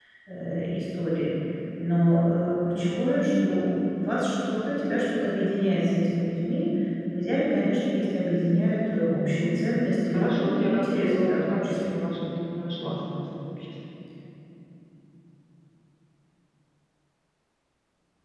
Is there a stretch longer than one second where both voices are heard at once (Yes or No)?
Yes